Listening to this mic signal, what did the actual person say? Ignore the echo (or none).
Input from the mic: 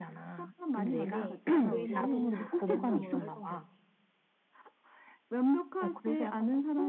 근데 의상이 랜덤으로 설정된대.